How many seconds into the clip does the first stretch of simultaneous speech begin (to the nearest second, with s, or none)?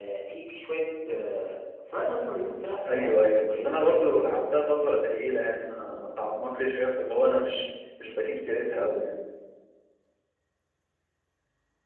3 s